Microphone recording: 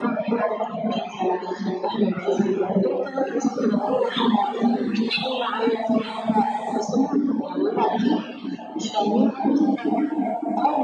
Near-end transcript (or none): none